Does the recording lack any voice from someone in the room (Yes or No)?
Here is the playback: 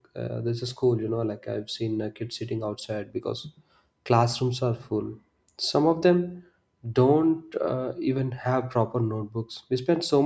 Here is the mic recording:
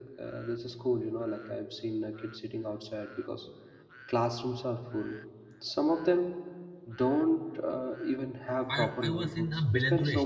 No